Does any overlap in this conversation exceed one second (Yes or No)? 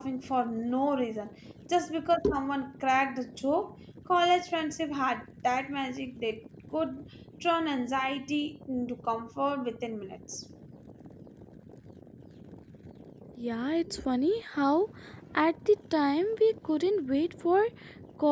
No